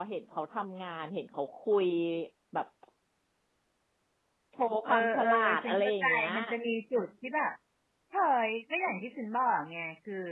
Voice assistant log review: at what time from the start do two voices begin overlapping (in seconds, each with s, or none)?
4.9 s